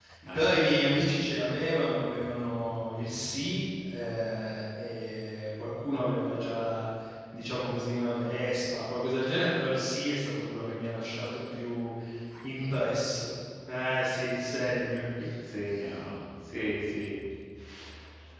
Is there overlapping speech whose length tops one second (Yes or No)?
No